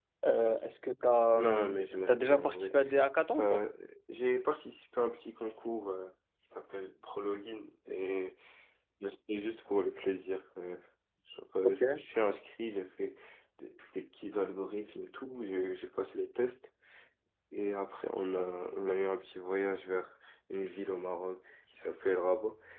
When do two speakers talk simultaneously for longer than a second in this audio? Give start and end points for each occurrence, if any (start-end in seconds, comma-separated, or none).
1.4-2.7